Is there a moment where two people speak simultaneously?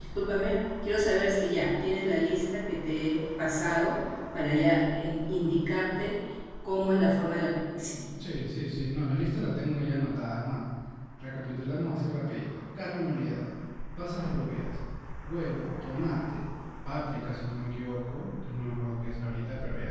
No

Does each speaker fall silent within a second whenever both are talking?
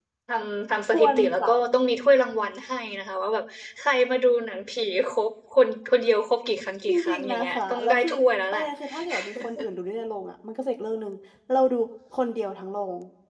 No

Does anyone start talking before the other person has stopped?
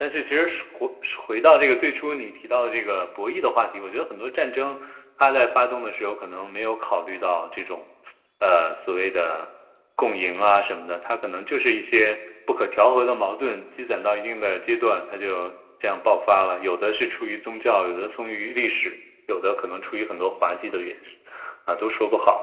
No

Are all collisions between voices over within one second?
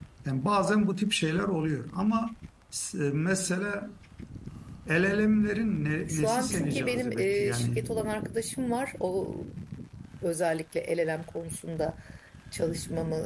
No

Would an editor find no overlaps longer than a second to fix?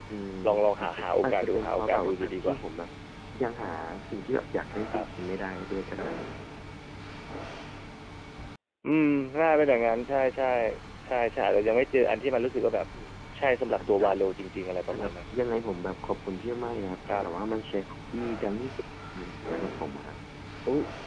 No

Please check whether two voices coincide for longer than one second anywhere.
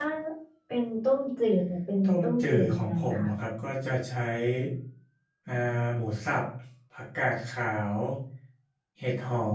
Yes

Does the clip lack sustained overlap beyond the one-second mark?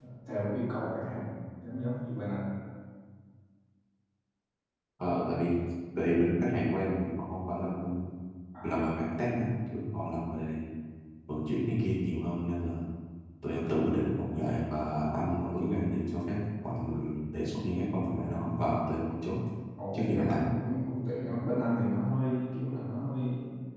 Yes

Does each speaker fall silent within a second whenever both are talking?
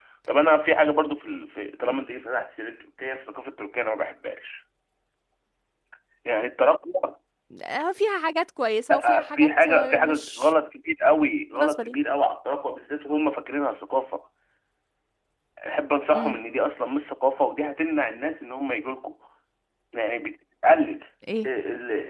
No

